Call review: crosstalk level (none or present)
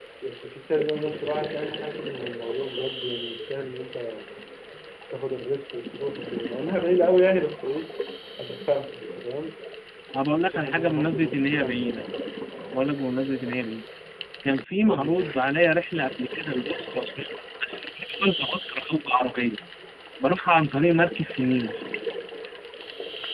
present